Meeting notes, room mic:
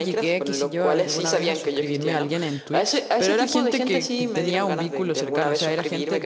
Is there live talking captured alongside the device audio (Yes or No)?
Yes